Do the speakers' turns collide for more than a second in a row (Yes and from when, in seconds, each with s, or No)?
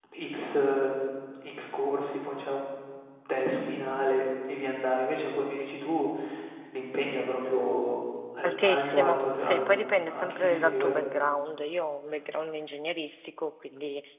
Yes, from 8.4 s